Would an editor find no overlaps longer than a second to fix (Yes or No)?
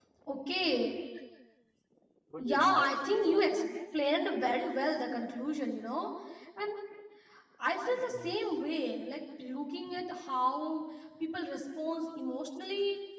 No